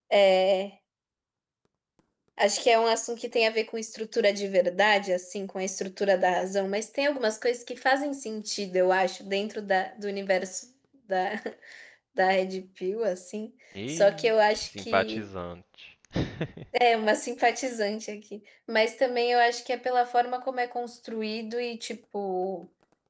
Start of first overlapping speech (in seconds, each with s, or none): 13.8 s